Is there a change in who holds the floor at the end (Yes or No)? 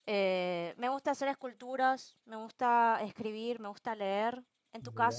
Yes